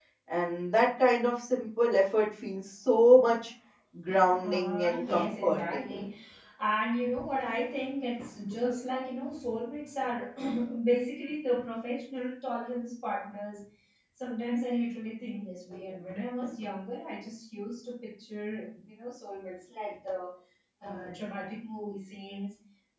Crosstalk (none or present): present